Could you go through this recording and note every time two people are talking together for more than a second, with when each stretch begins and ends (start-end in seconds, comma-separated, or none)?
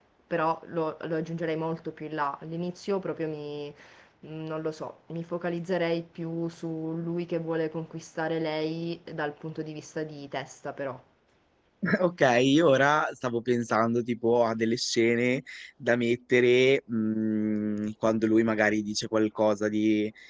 none